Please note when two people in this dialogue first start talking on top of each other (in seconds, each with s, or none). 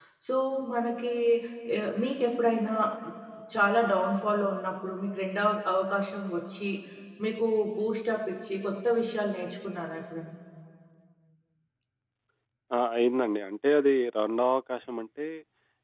none